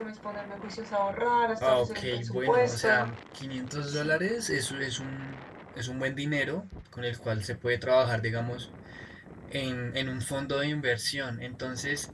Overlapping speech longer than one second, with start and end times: 1.7-3.1

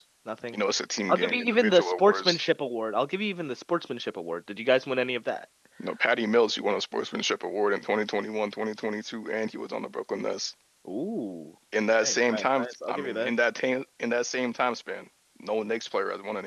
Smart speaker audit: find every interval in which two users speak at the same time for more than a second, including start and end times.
1.1-2.4, 12.0-13.3

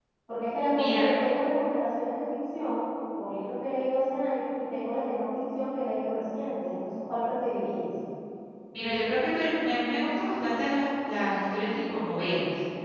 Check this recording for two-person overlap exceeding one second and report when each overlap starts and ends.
none

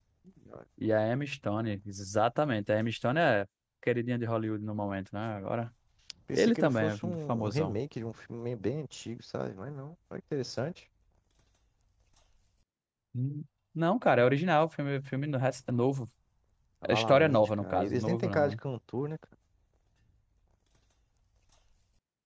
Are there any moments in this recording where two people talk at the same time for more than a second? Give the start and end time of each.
6.3-7.8, 16.9-18.6

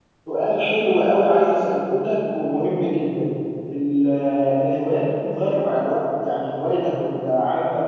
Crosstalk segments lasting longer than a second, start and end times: none

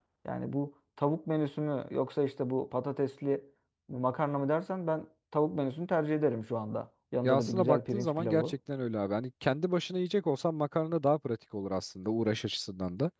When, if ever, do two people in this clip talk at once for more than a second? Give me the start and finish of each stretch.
7.2-8.5

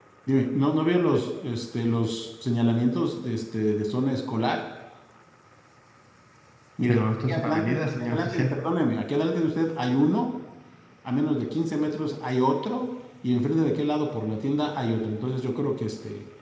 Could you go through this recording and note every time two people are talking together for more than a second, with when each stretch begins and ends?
6.9-8.6

